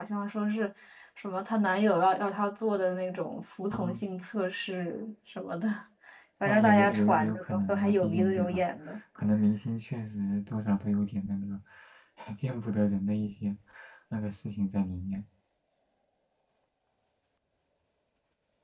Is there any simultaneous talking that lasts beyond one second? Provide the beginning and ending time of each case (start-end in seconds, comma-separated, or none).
6.4-8.6